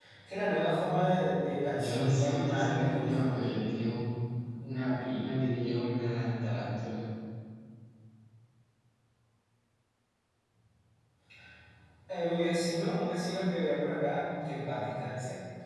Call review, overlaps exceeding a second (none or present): present